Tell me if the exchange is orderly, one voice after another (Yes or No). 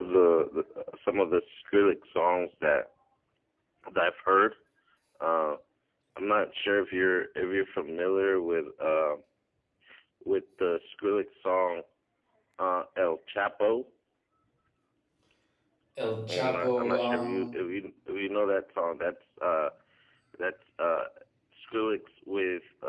No